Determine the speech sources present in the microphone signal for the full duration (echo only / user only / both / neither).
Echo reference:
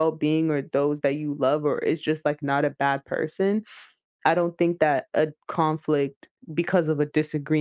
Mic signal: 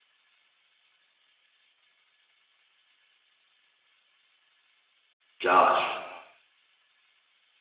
user only